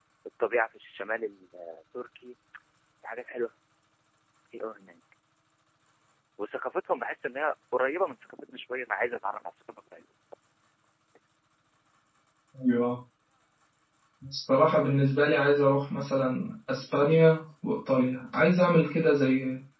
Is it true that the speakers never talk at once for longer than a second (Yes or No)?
Yes